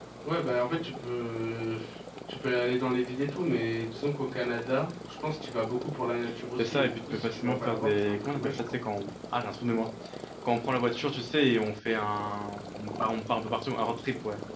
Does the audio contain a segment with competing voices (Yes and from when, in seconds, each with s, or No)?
Yes, from 6.6 s